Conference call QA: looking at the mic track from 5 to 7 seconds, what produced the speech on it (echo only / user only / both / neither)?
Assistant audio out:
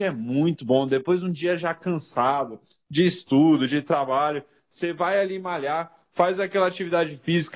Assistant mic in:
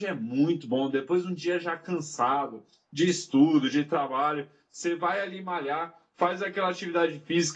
echo only